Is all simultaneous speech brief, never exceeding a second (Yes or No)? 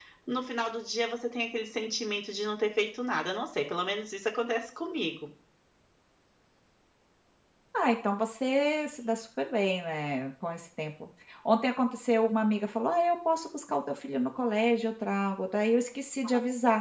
Yes